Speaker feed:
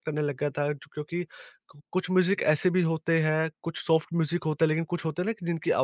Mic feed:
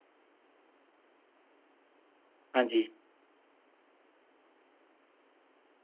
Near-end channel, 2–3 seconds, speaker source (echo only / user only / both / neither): user only